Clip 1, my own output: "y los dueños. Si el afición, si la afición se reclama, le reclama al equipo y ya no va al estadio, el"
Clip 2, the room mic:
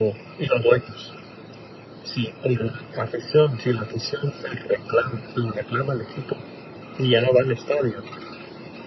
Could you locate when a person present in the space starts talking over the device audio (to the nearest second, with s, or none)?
none